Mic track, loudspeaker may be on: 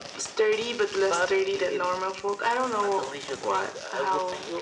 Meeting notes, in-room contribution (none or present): none